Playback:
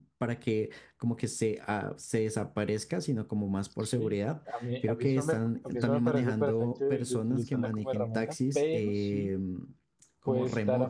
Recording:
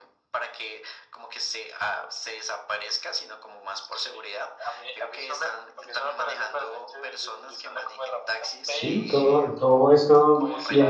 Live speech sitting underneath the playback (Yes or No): No